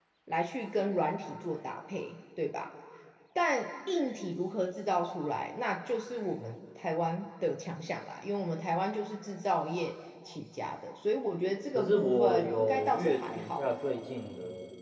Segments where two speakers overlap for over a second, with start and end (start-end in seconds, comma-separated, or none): 11.7-13.7